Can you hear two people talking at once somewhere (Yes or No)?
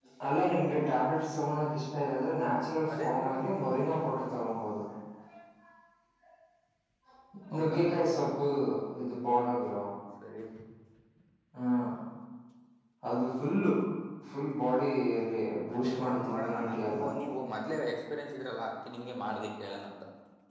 Yes